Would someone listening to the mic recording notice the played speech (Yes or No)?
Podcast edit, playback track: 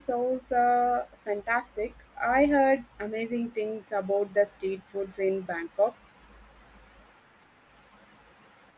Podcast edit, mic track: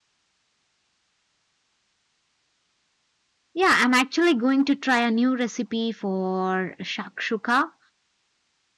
No